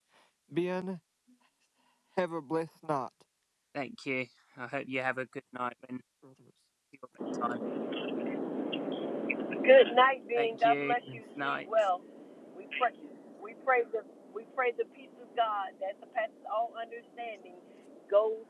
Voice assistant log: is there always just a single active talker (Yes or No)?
No